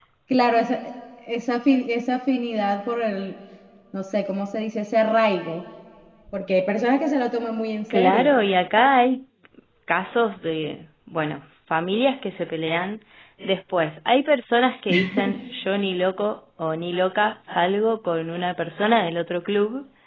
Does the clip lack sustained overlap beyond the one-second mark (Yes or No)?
Yes